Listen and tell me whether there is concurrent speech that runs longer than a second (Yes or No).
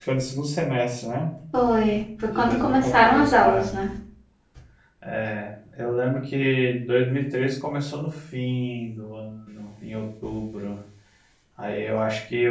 Yes